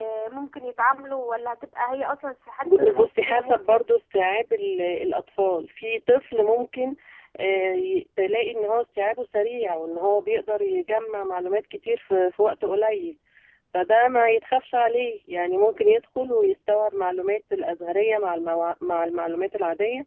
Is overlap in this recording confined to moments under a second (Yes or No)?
No